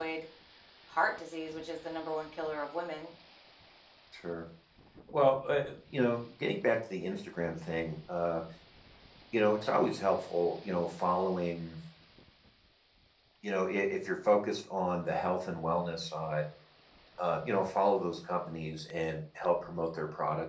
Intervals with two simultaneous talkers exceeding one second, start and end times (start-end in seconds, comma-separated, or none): none